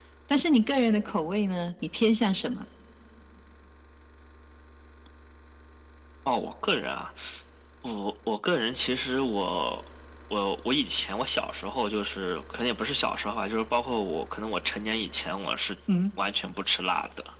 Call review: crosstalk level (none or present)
none